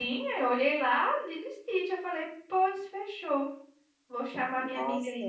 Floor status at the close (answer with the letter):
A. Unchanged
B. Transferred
A